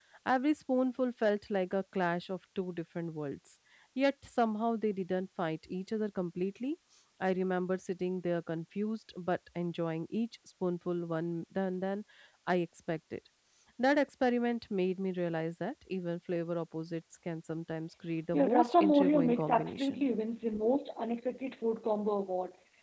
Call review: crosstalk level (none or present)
present